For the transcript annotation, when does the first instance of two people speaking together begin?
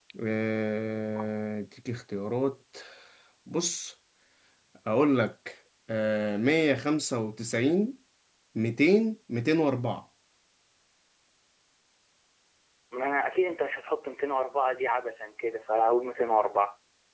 none

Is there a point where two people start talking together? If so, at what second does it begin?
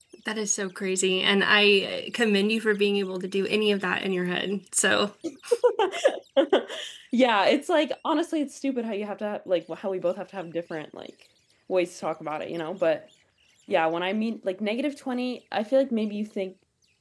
none

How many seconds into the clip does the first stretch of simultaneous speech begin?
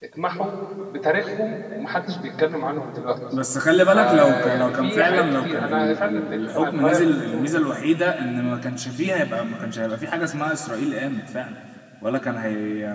3.9 s

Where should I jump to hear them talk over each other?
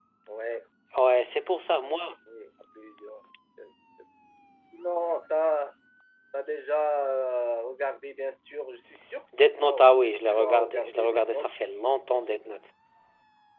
9.6 s

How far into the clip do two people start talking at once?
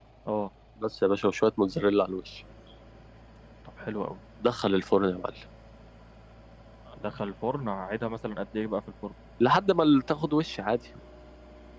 none

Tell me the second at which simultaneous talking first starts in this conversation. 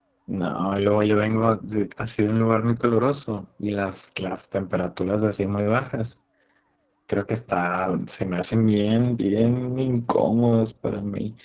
none

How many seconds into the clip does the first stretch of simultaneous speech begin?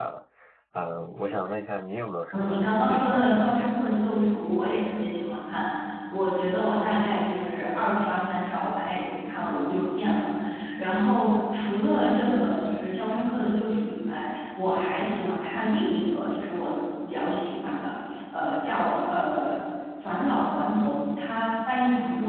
2.3 s

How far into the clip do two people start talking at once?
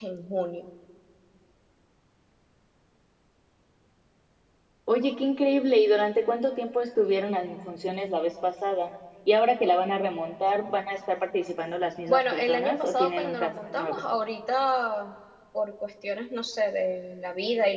12.1 s

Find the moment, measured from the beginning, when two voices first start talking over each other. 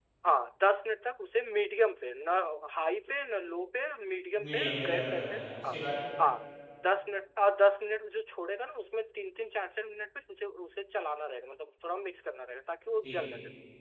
4.5 s

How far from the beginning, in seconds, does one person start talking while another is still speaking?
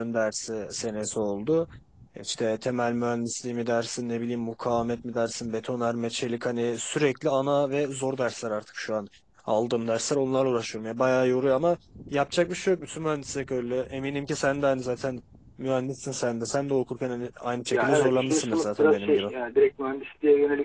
17.7 s

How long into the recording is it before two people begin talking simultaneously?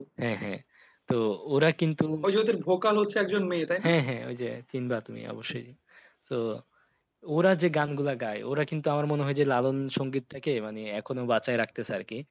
none

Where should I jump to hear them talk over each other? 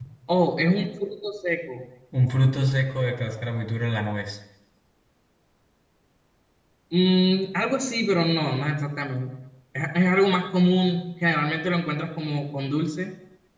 none

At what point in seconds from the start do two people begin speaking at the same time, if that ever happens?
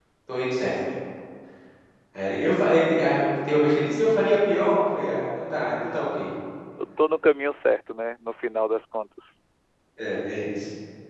none

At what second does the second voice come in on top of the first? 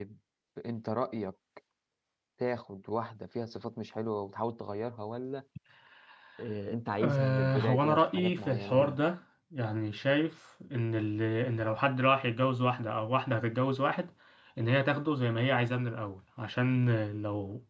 7.0 s

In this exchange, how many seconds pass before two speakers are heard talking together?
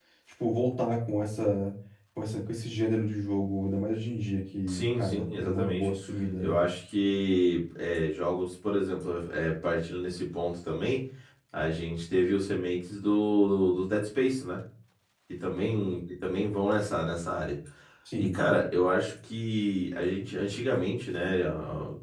4.7 s

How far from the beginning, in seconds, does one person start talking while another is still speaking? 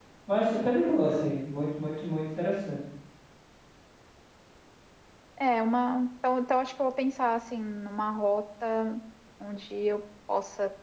none

